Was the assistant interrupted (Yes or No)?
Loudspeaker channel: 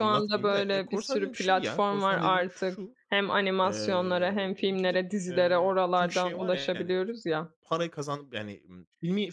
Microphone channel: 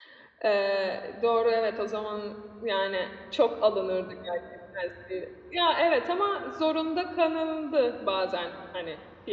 Yes